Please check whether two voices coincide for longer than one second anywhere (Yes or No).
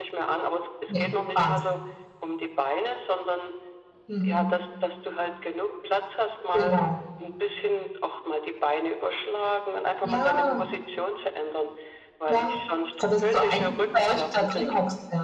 Yes